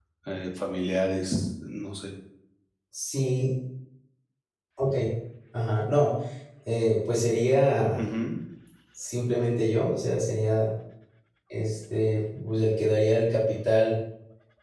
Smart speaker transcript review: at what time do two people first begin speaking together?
none

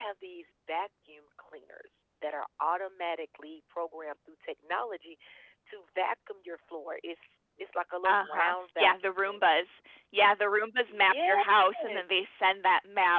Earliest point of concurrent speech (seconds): 8 s

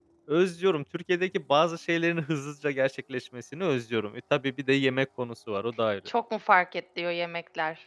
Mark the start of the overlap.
none

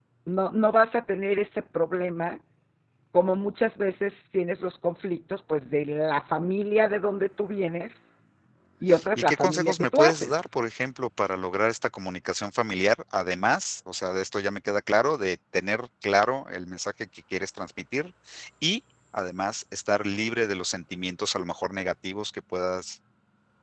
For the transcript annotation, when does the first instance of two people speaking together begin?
9 s

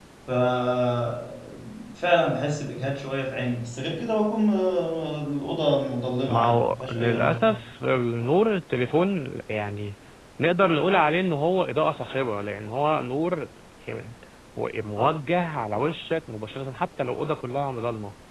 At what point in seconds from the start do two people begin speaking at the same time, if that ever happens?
6 s

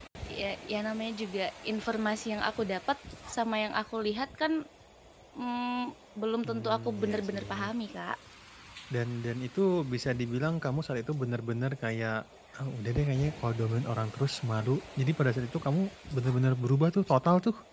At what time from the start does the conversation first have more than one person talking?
6 s

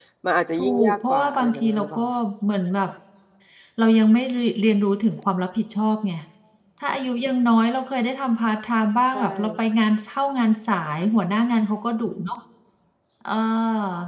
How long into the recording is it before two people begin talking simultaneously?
1 s

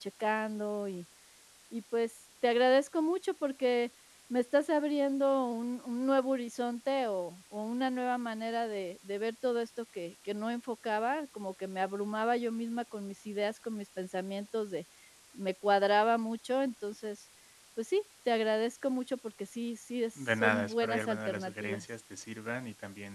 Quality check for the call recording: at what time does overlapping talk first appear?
20 s

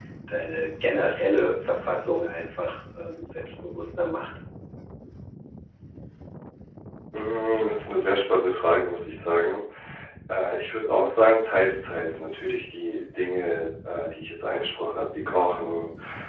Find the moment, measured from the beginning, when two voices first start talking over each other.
none

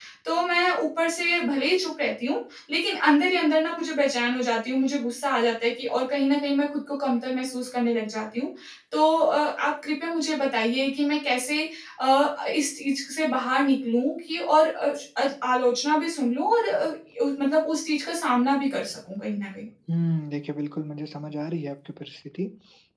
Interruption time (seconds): none

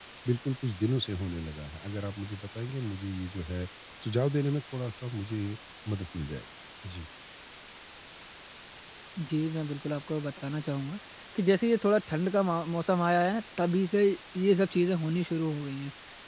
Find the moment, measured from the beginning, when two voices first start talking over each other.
none

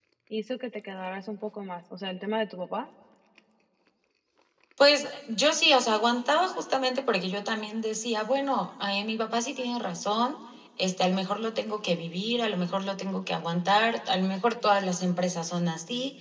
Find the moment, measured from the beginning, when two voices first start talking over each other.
none

